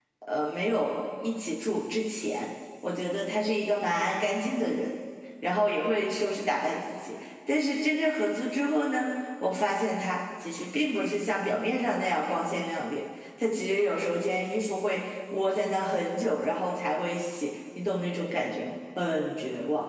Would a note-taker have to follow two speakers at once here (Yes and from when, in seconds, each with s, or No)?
No